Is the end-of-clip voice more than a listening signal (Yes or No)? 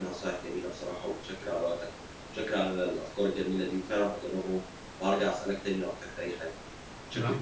Yes